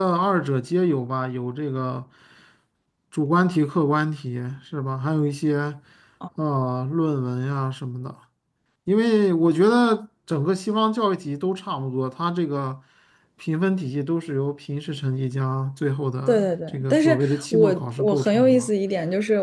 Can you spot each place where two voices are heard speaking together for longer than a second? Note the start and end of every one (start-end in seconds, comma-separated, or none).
16.3-18.7